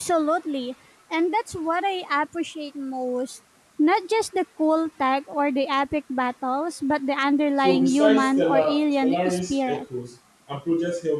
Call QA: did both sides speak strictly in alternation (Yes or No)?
No